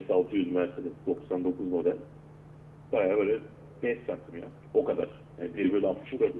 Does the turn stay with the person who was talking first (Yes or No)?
Yes